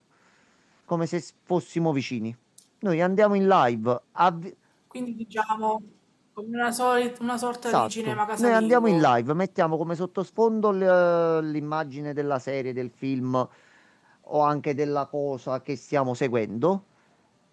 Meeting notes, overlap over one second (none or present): present